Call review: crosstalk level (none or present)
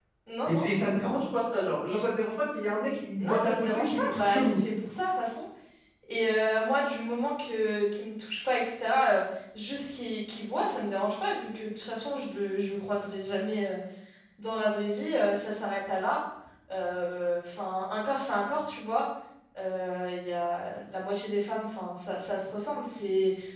present